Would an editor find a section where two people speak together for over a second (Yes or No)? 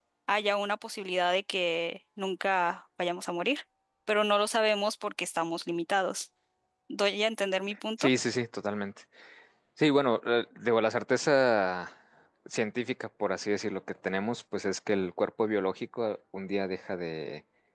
No